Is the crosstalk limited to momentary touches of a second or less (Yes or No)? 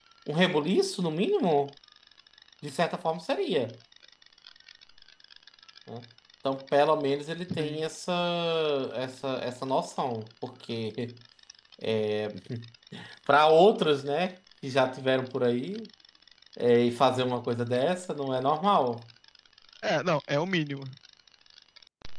Yes